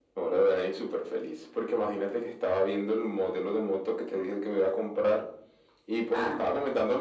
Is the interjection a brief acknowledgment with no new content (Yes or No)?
Yes